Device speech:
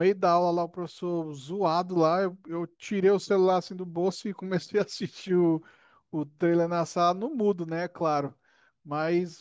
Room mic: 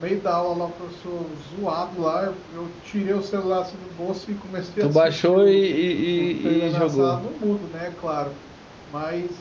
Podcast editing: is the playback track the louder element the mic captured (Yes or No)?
No